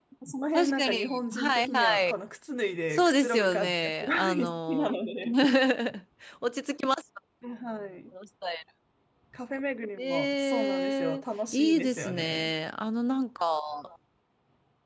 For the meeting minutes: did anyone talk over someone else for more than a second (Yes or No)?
Yes